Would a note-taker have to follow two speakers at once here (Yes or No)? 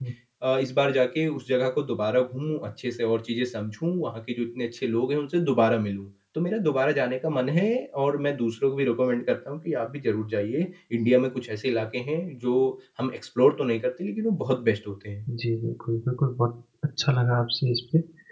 No